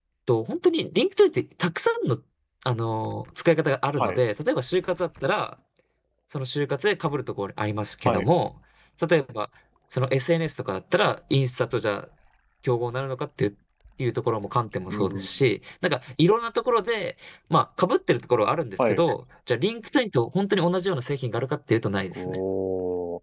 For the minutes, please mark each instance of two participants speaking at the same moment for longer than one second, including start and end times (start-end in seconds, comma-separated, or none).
none